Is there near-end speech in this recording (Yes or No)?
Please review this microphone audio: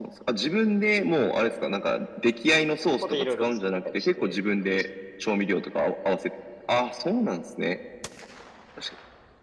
Yes